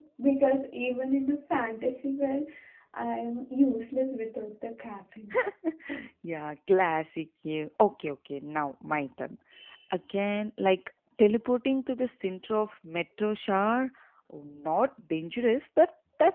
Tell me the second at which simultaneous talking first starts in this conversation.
none

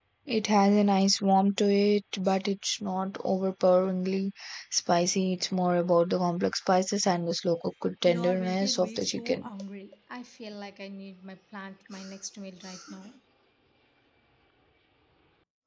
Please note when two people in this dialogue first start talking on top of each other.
8 s

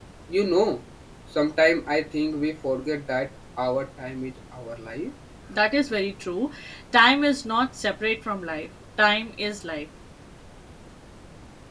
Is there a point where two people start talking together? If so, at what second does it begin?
none

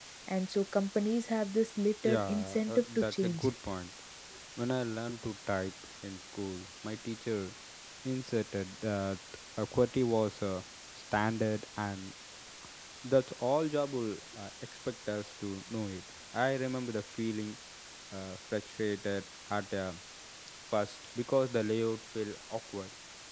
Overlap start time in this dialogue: 2 s

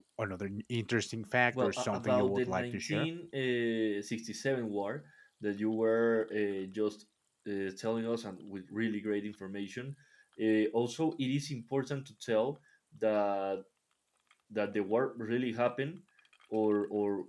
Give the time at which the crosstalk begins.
2 s

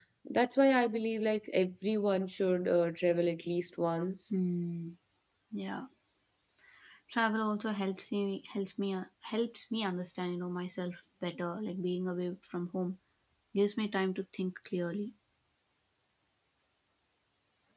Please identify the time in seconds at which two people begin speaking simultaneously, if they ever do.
none

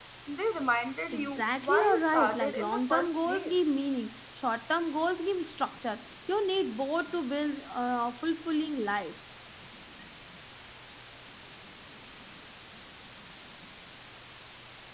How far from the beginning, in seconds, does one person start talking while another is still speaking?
1 s

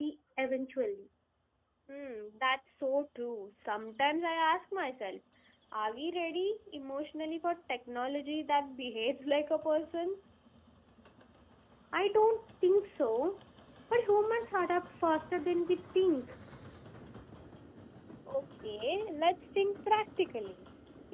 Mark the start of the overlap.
none

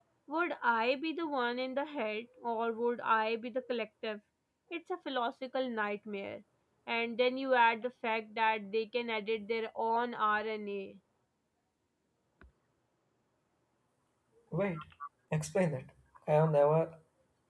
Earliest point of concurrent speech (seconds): none

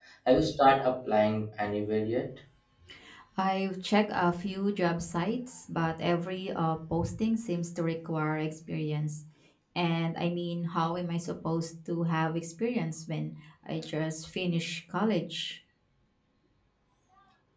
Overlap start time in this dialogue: none

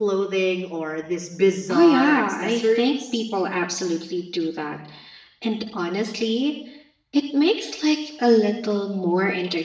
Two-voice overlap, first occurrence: 2 s

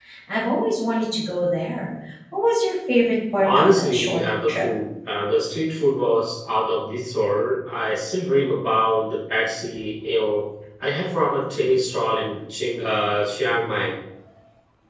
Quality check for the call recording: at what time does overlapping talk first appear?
3 s

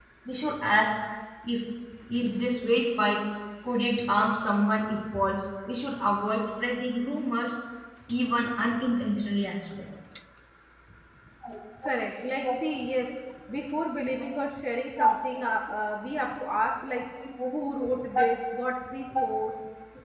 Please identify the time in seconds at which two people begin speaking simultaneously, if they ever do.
none

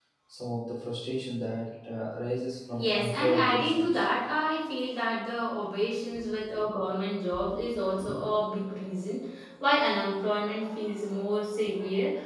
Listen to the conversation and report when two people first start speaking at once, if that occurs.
3 s

